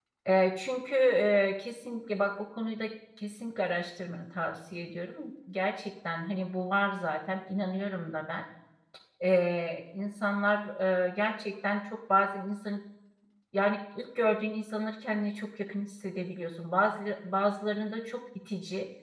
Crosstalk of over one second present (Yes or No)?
No